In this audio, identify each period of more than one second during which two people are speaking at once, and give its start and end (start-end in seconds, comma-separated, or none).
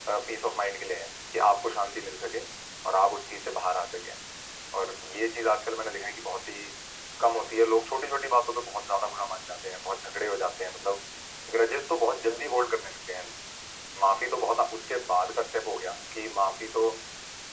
none